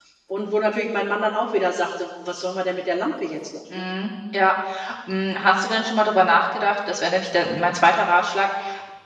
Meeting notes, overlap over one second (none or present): none